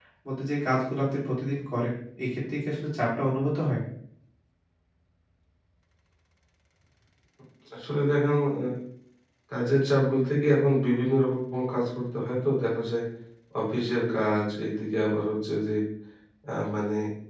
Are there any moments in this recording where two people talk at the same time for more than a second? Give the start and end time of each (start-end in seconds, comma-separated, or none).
none